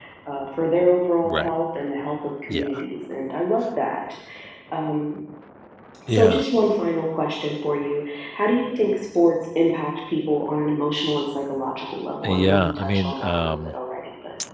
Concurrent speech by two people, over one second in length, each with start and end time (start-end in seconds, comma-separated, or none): 12.2-13.7